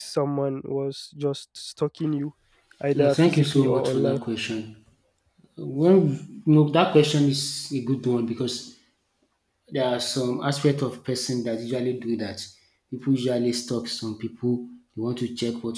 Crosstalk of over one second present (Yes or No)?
Yes